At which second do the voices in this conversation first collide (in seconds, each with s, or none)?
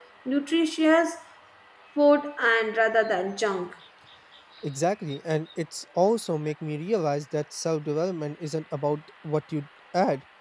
none